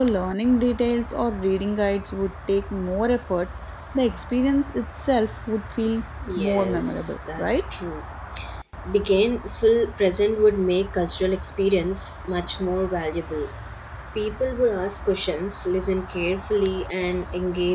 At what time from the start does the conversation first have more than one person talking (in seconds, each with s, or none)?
6.2 s